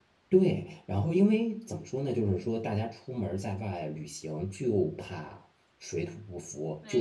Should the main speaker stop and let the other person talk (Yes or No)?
No